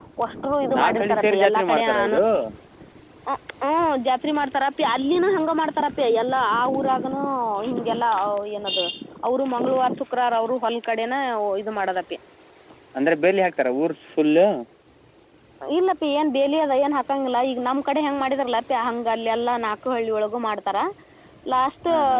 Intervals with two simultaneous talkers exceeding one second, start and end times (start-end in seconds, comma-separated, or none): 0.8-2.2